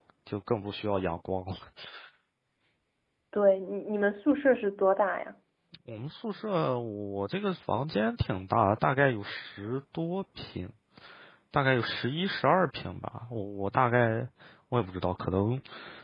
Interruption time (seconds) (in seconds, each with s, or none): none